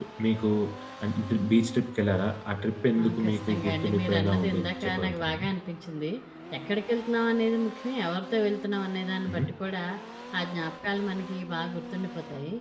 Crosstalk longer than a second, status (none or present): present